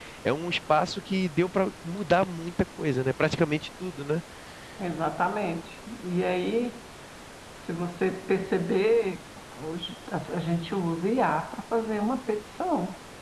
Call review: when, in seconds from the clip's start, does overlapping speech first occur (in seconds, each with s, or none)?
none